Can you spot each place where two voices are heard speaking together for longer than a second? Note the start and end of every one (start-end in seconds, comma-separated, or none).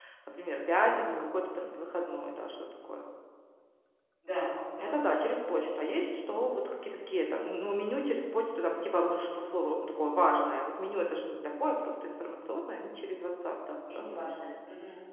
none